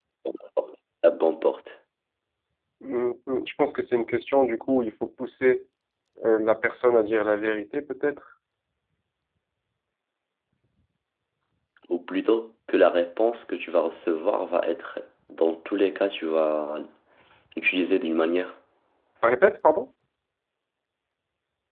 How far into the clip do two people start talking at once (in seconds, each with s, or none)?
none